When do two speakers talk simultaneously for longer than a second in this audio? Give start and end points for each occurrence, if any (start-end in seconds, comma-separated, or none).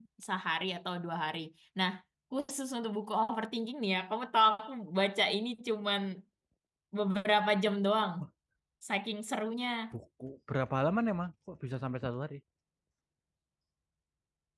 none